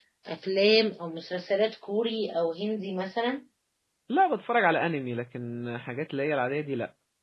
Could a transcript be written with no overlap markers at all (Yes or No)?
Yes